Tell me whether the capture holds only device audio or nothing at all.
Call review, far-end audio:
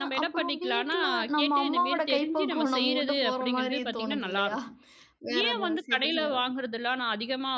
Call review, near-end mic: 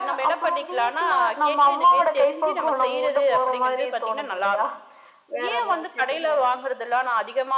Yes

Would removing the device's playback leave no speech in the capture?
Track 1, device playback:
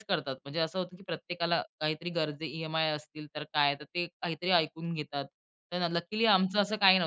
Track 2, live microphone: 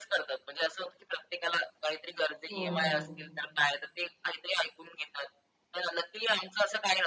No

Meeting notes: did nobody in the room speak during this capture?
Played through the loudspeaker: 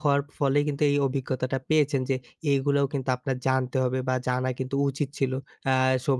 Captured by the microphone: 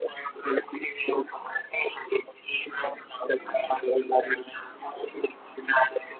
Yes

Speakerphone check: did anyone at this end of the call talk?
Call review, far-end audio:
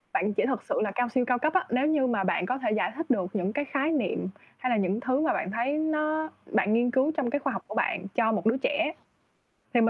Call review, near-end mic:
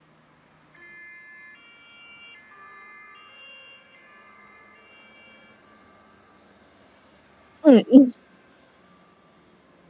Yes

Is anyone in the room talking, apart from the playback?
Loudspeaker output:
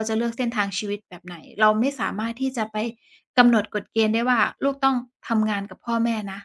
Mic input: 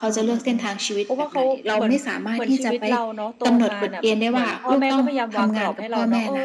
Yes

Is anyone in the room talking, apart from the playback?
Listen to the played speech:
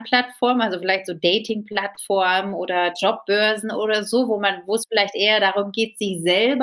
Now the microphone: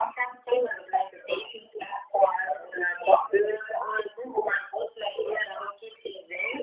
No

